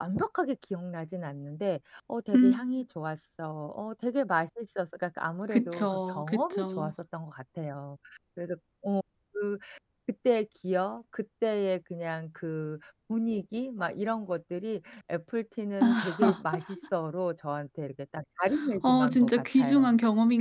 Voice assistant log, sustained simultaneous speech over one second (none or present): present